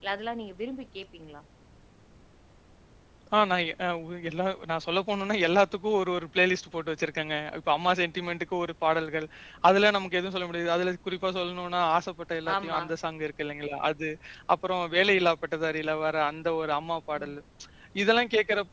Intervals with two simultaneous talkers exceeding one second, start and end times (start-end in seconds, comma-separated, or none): none